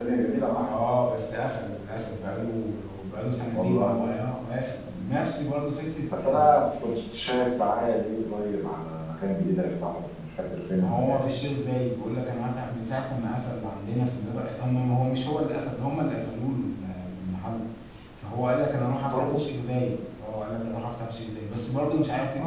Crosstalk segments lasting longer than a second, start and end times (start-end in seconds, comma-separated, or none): none